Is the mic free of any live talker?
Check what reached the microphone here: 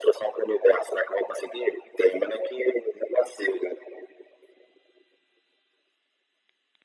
Yes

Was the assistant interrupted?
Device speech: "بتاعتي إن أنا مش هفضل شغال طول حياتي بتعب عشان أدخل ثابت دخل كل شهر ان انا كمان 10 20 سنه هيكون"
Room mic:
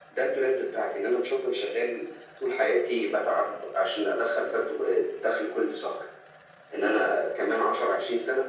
No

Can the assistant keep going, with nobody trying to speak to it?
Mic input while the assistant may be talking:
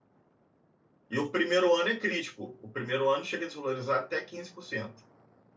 No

